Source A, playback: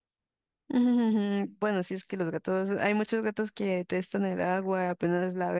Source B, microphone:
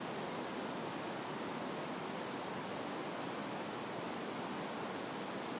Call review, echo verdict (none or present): none